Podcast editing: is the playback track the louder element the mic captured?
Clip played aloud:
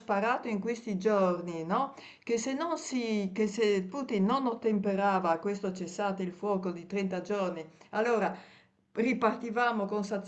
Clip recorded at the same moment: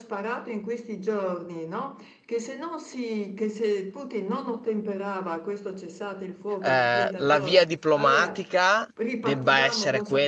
No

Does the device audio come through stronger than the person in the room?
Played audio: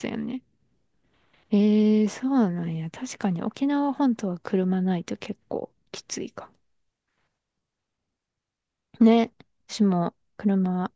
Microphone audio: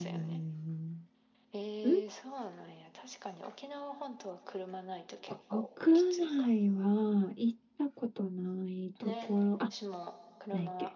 No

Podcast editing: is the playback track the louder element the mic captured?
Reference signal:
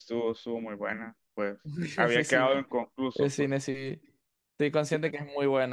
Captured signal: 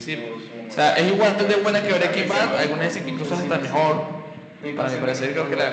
No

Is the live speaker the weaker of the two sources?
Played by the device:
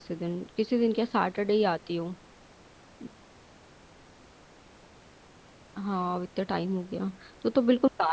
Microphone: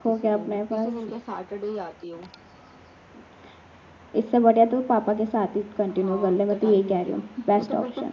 No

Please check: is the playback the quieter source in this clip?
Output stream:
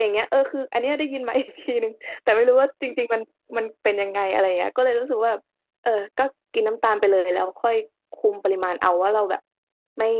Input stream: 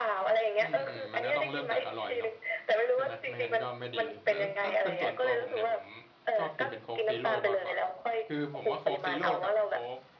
No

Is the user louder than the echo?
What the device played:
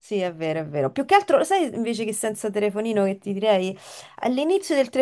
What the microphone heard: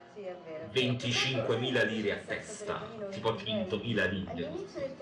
Yes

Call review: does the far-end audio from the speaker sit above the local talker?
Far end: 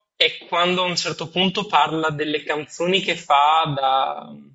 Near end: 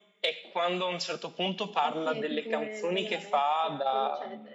Yes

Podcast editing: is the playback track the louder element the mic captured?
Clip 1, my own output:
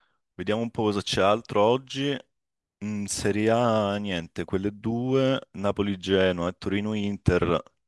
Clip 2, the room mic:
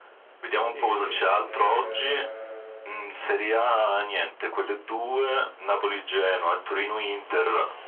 Yes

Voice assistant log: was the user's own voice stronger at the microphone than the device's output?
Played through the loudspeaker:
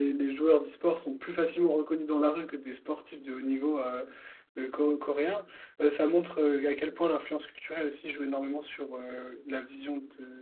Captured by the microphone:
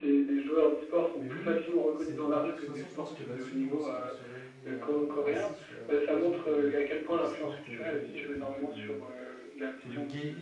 No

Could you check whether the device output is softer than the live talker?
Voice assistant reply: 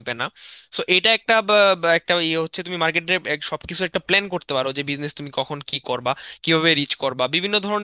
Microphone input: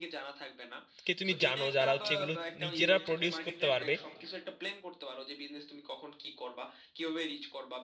Yes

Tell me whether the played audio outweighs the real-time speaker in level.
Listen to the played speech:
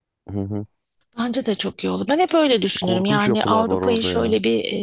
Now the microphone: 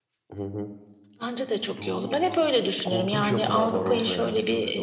Yes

